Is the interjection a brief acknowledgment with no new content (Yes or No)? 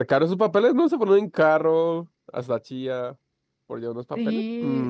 No